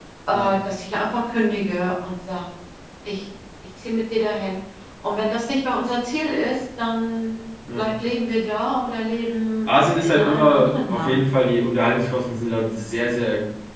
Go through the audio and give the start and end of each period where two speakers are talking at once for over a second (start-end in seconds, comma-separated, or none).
9.7-11.2